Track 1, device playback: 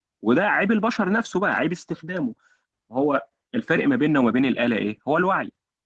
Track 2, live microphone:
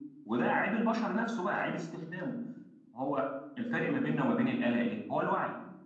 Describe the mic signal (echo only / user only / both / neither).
echo only